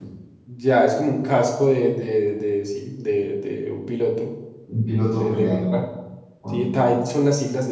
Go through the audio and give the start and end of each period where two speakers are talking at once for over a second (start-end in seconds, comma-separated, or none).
none